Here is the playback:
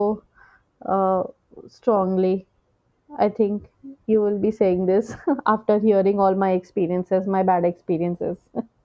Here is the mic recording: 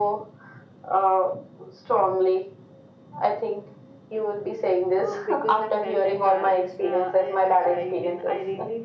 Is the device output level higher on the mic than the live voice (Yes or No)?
Yes